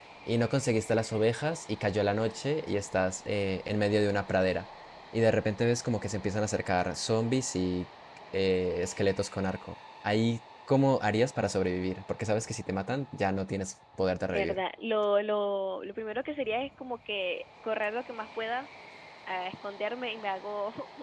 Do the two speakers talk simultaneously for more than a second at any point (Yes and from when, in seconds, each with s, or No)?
No